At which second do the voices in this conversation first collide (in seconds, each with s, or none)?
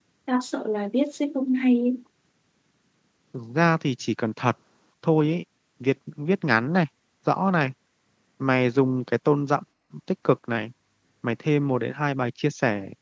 none